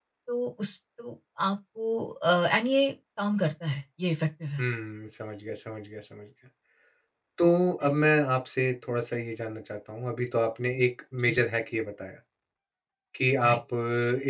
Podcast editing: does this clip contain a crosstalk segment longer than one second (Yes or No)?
No